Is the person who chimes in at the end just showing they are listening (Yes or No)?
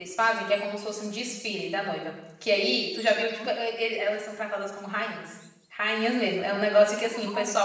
Yes